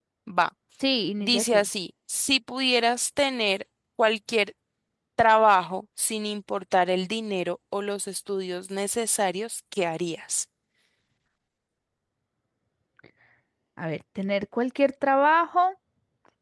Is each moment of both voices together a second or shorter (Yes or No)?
Yes